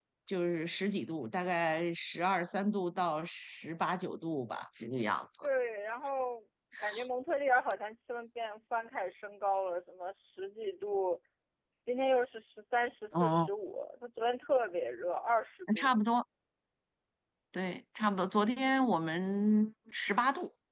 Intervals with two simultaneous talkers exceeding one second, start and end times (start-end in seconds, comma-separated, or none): none